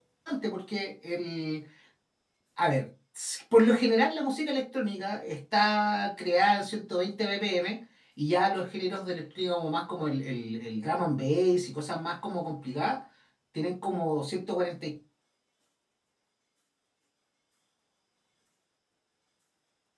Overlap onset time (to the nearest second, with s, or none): none